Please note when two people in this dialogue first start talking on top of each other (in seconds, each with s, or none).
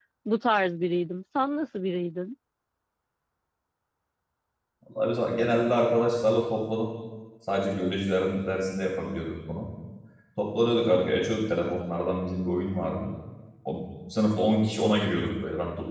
none